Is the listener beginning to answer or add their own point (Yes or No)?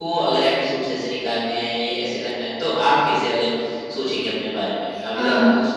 Yes